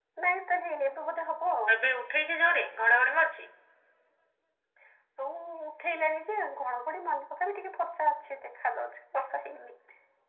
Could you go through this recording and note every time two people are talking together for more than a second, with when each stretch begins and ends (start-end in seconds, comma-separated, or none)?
none